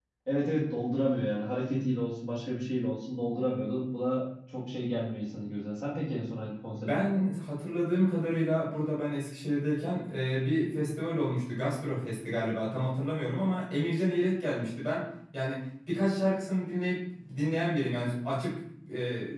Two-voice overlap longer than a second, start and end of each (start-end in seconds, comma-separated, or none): none